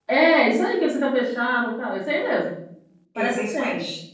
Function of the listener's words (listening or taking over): taking over